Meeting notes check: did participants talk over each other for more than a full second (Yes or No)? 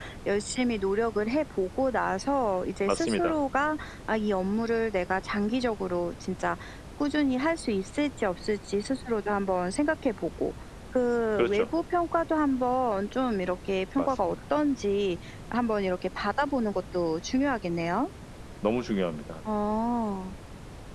No